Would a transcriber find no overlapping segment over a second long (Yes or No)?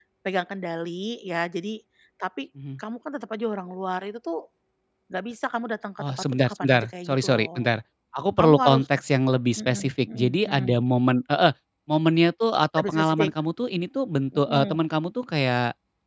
No